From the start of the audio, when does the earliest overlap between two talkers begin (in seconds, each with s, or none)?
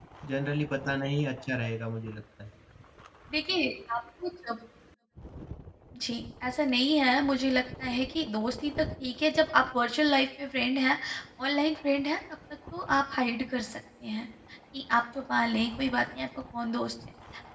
none